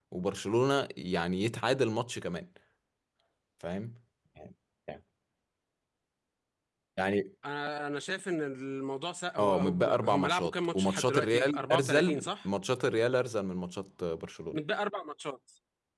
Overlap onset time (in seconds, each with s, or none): 9.4 s